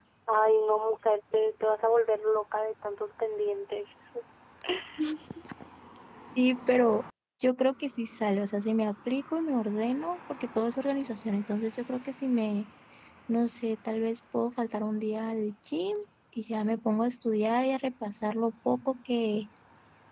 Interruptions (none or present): none